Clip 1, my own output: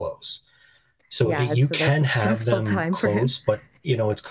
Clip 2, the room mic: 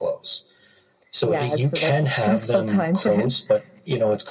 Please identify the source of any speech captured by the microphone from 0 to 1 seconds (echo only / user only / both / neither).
echo only